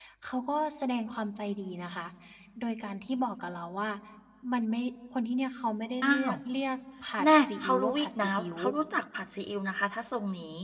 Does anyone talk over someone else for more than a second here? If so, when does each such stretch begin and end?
7.2-8.6

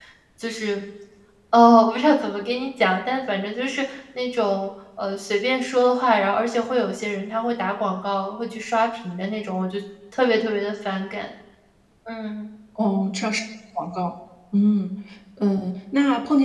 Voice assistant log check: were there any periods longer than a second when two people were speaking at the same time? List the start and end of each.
none

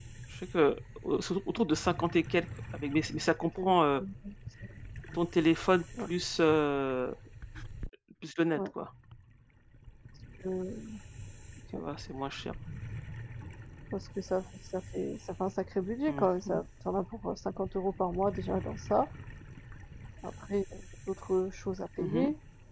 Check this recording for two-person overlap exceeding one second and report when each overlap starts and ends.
none

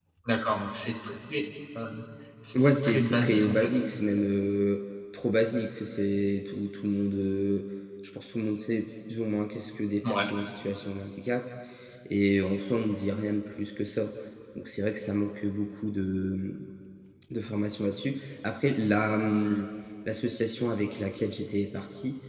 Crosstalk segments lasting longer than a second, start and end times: 2.5-3.8

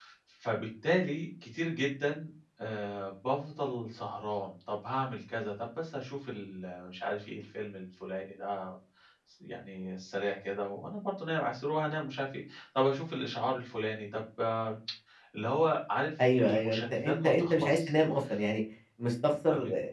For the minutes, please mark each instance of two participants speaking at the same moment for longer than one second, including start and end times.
16.4-17.9

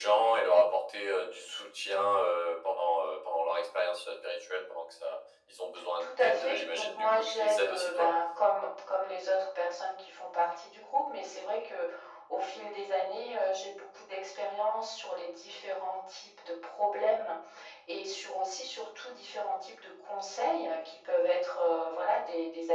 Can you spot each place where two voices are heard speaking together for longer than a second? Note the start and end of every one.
6.0-8.1

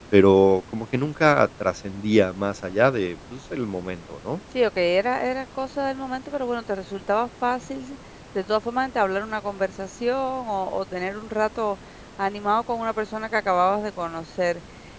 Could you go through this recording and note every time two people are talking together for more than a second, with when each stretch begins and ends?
none

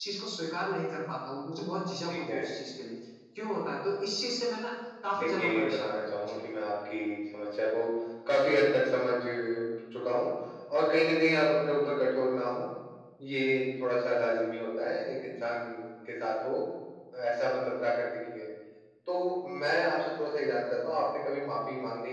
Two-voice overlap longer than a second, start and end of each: 5.2-6.4

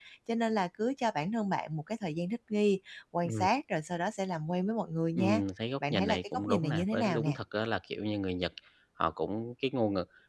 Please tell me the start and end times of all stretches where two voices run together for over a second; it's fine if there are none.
5.9-7.4

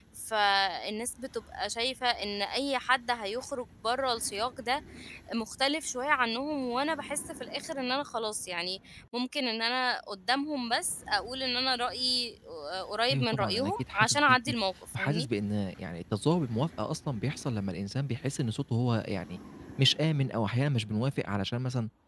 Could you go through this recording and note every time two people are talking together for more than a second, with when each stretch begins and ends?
13.1-14.4

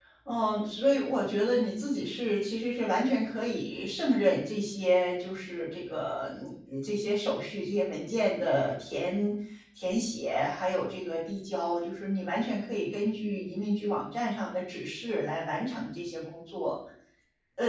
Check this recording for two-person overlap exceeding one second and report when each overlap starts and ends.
none

